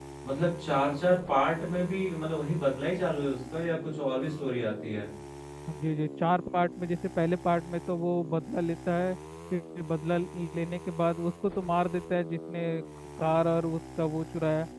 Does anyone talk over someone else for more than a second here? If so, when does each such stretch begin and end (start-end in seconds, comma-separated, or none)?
none